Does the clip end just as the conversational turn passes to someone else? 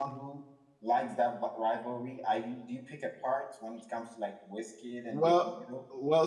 Yes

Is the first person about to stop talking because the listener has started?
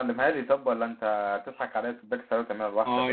Yes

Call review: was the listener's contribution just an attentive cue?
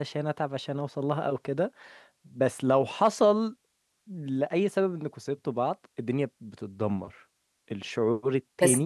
No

